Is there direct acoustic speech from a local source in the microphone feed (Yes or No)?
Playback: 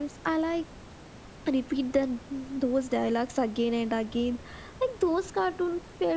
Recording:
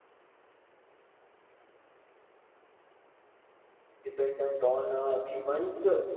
Yes